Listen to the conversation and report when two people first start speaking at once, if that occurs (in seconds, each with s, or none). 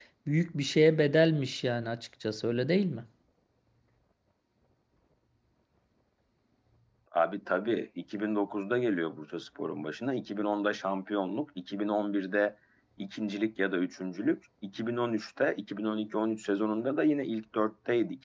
none